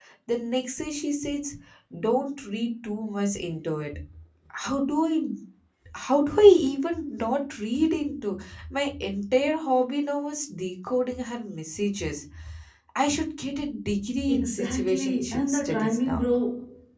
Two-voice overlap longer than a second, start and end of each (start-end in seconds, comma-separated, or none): 14.3-16.2